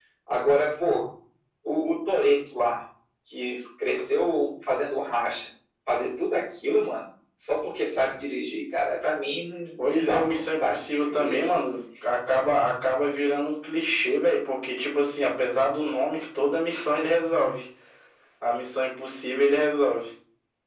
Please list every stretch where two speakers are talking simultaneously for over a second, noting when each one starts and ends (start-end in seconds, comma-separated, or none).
9.8-11.5